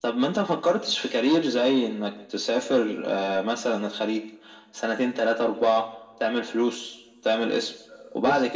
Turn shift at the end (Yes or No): No